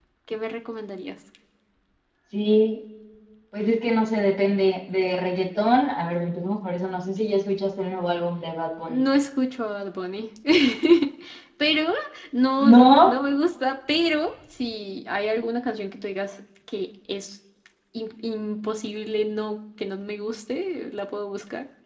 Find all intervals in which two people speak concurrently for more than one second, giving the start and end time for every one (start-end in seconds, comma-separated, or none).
none